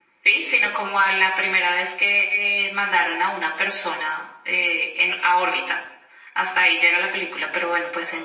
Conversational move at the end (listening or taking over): listening